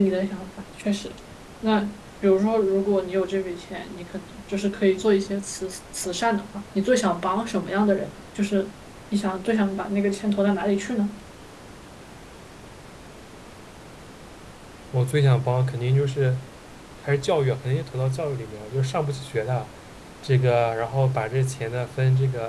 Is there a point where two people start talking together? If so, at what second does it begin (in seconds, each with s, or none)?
none